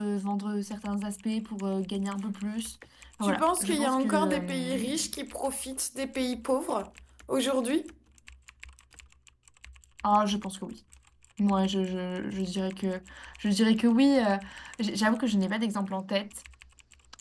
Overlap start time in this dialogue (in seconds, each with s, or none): 3.2 s